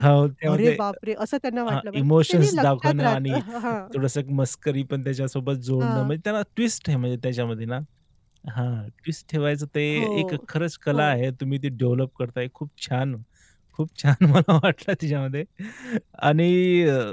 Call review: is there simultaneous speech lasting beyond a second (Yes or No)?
Yes